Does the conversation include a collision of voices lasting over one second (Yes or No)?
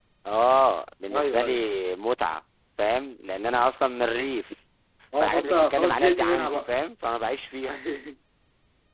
Yes